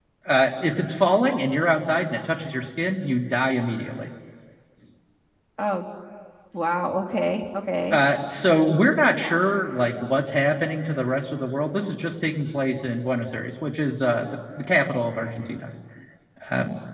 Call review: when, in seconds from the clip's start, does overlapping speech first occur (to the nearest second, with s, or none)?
none